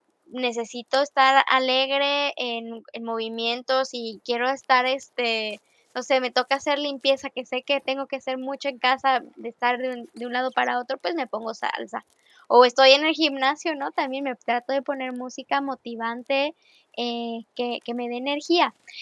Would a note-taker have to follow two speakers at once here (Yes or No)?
No